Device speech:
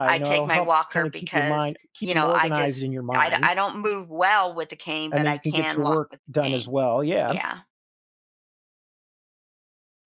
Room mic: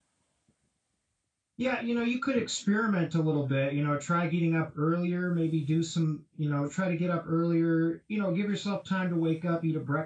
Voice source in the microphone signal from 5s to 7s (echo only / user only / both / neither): user only